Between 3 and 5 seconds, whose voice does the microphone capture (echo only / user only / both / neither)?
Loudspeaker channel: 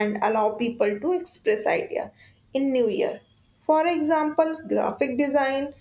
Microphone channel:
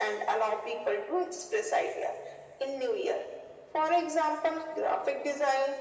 echo only